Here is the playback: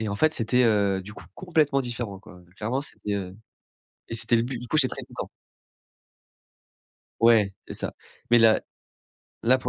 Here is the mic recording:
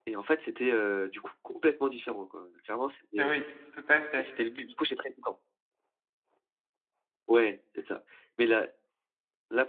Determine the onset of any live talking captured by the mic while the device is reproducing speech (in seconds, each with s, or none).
3.2 s